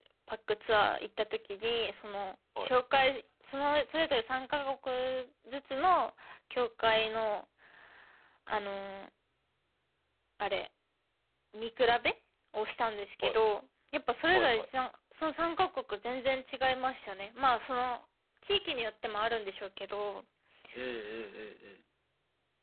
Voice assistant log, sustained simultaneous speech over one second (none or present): none